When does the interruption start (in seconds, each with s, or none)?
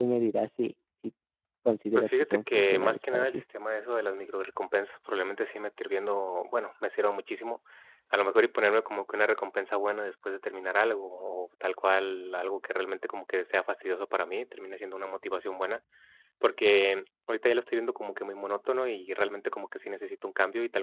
1.9 s